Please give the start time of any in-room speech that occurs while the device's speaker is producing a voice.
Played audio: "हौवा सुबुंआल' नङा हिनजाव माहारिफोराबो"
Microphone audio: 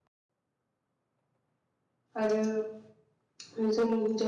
2.2 s

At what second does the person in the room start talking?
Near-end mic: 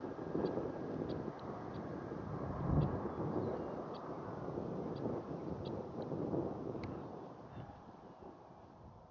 none

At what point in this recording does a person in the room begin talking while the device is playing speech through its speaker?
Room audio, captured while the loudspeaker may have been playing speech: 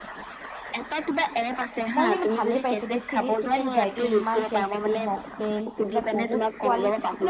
1.9 s

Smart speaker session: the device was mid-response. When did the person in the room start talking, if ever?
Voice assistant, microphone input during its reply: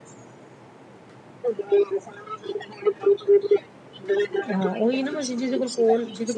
4.5 s

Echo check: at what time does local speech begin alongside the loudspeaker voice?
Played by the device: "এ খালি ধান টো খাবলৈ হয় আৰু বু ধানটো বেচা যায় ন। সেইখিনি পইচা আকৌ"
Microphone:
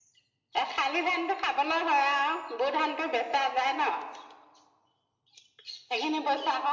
none

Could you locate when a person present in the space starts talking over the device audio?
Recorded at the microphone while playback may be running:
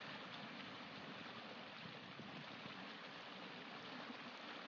none

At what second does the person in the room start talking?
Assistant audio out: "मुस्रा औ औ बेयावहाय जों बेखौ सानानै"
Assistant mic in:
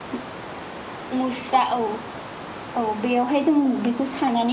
none

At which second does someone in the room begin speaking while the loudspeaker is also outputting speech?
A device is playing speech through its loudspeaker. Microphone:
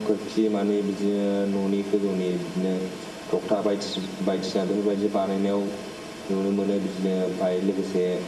none

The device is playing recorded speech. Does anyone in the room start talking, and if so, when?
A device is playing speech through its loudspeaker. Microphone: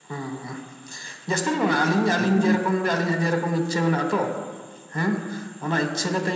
2.2 s

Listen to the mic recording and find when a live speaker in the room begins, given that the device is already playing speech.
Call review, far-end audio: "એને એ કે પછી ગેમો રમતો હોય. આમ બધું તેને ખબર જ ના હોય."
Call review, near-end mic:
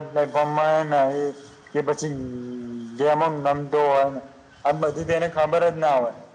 none

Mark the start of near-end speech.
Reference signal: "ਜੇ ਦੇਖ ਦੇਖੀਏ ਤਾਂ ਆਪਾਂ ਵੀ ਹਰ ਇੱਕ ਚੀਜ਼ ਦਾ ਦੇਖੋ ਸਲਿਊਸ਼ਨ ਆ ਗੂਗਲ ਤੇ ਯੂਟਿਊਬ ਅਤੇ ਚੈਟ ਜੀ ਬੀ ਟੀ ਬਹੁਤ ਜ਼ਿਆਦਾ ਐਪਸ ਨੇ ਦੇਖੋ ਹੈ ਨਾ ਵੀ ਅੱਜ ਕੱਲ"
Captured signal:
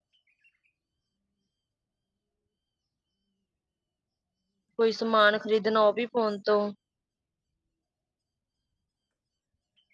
4.8 s

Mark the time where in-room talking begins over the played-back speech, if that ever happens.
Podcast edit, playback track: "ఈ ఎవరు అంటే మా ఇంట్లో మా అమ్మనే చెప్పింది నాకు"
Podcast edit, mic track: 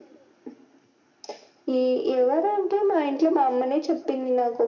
none

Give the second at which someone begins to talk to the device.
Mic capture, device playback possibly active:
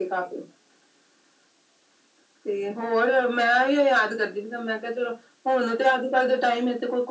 none

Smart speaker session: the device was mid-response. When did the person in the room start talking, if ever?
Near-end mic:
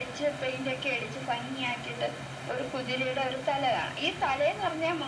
none

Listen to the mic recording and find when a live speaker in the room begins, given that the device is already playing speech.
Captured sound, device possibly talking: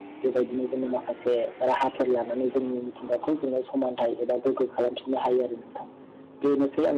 none

